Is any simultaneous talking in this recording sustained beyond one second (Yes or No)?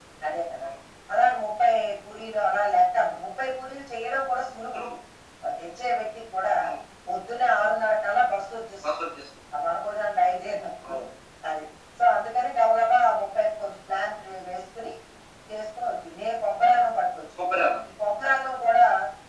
No